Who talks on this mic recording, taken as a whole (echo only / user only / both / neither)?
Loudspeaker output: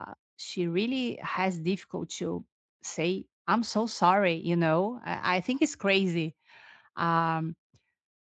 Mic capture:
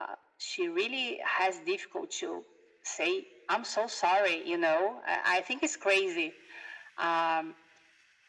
echo only